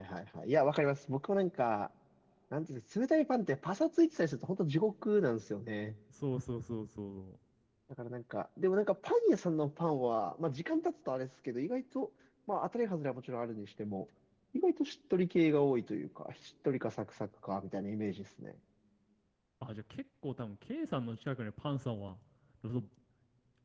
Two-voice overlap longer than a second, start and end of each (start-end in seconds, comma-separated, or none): none